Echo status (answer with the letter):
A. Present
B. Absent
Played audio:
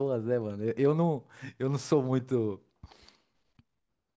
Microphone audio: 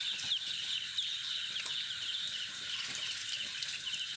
B